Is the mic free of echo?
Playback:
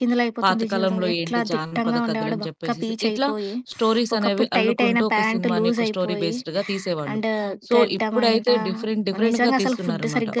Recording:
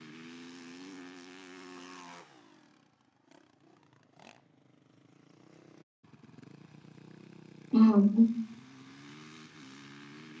Yes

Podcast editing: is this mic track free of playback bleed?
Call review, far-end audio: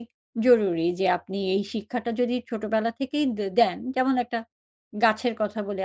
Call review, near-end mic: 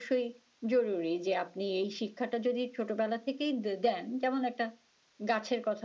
No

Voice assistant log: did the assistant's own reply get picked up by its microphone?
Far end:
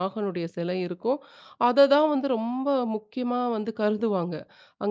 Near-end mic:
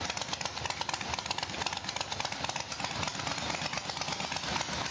No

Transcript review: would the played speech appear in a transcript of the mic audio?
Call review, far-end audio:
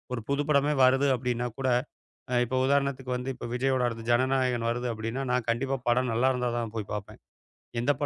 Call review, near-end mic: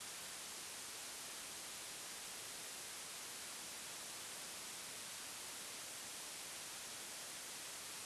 No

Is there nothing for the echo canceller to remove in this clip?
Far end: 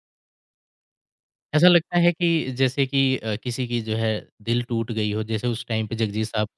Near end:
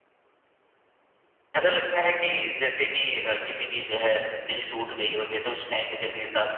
No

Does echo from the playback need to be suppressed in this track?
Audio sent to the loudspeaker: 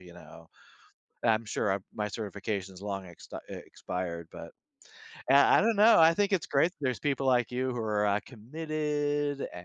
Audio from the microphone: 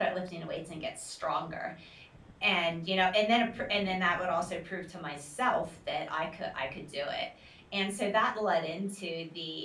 No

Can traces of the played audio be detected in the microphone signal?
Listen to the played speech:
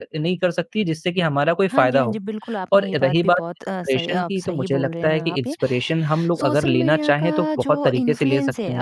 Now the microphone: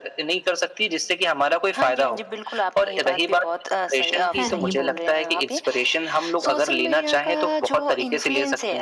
Yes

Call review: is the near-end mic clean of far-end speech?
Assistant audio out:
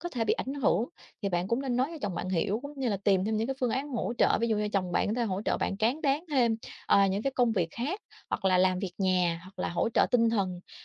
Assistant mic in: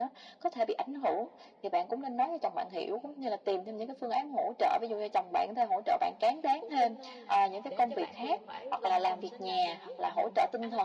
No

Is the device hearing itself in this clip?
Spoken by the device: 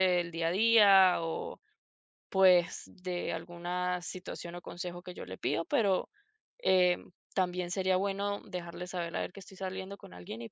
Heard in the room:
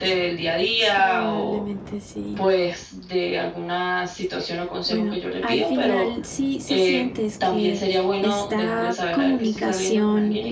Yes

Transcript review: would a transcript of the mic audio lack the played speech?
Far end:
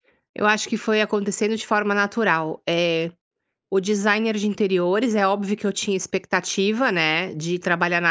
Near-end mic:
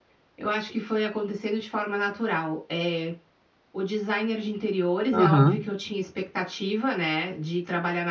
No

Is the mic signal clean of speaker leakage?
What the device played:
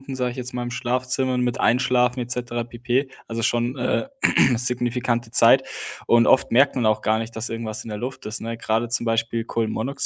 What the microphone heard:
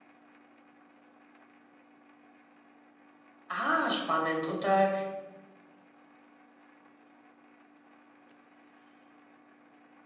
Yes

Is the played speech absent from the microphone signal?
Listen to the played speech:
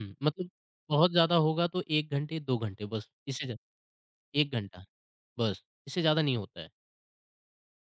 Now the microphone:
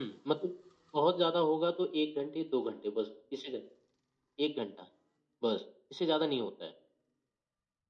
No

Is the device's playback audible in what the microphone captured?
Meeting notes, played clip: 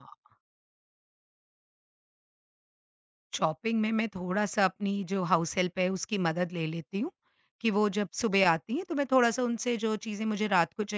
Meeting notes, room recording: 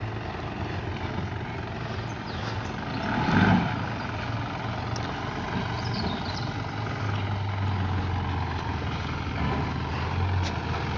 No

